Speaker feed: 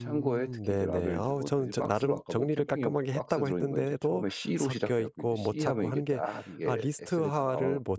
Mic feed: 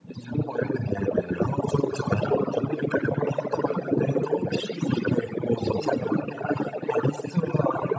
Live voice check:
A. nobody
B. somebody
A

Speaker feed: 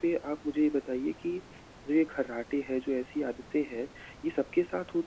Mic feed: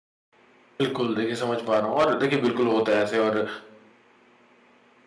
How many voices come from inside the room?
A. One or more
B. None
A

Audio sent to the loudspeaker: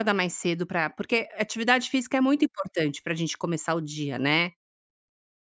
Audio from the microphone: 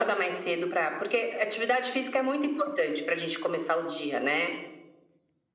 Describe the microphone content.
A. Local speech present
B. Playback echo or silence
B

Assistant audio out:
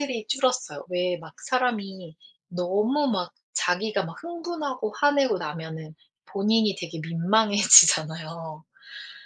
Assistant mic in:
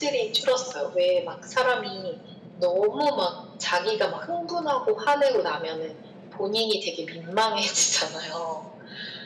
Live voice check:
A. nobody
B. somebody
A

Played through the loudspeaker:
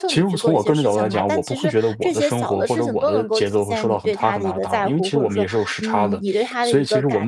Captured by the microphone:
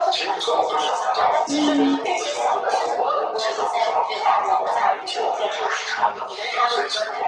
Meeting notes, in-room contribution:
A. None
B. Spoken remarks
B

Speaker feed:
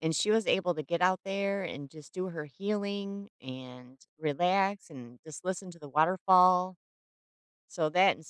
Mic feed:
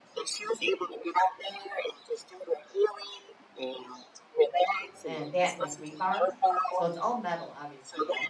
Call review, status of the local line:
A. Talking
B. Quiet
A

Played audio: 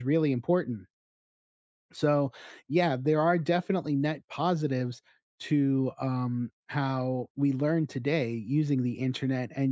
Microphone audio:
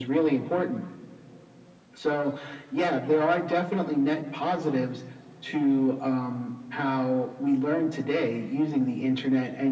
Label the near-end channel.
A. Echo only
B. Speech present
A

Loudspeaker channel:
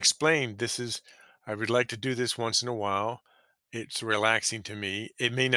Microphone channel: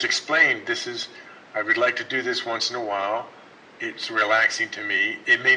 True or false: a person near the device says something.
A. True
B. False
B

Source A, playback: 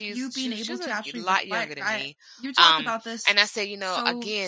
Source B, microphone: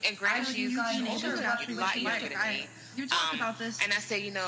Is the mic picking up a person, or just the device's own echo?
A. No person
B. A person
B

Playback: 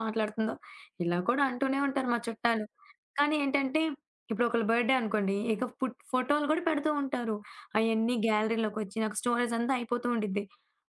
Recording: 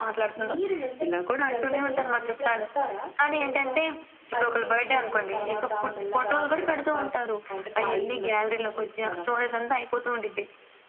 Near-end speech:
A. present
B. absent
A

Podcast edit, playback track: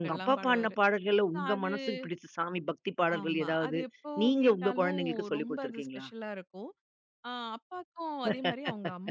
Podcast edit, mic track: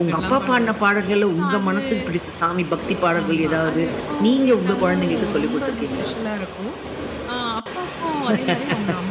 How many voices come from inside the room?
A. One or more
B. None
B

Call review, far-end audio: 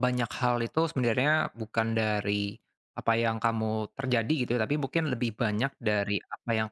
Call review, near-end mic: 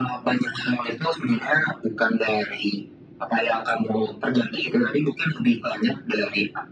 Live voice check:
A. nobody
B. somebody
A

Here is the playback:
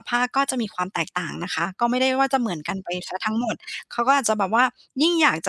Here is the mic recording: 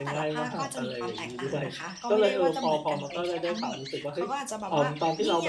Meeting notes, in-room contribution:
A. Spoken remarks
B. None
A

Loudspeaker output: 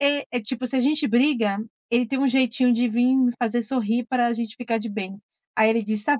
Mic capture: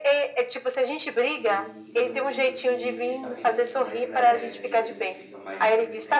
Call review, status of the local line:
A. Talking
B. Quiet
A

